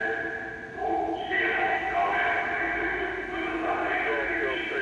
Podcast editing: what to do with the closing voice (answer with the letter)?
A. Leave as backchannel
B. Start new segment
B